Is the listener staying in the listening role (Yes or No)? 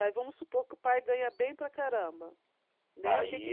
No